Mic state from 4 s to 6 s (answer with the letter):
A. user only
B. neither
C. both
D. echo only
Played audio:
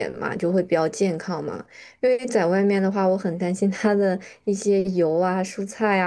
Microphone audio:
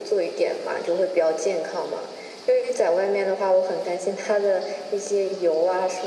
D